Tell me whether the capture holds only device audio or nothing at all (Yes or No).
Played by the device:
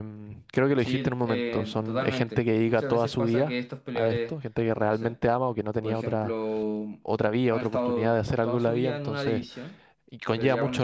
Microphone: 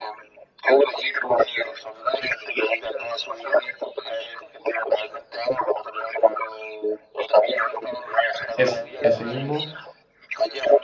No